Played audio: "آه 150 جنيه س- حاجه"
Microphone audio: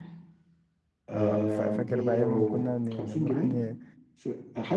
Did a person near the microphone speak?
Yes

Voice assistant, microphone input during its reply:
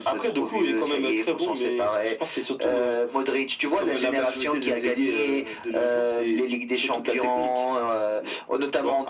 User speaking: No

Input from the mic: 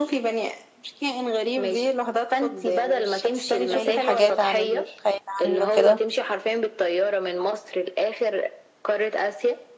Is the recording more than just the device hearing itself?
Yes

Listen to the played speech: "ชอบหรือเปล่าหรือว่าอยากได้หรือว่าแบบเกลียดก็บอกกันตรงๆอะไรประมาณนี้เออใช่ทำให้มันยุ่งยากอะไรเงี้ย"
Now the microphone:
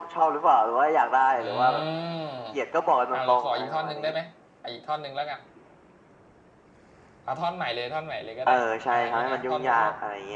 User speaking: Yes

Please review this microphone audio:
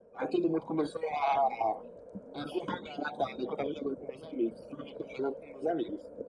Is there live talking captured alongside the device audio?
No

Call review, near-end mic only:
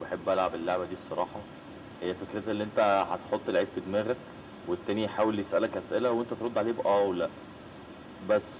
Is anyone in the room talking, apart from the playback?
No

